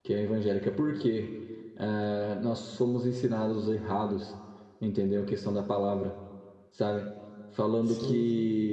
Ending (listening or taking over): listening